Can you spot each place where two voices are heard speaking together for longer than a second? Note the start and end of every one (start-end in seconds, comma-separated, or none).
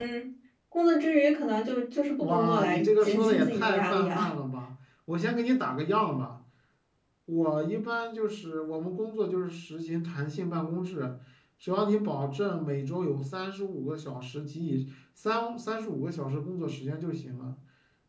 2.2-4.3